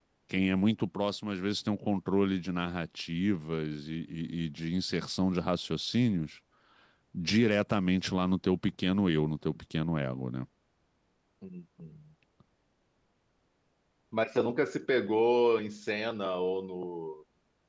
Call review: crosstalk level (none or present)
none